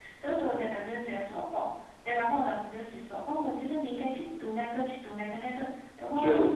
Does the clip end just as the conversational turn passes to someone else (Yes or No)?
No